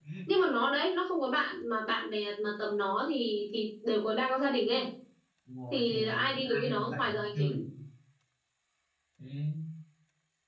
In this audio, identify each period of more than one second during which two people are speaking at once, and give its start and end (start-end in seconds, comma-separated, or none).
5.7-7.6